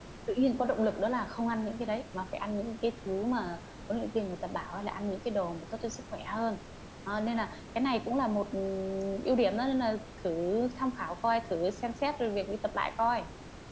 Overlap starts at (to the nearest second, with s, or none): none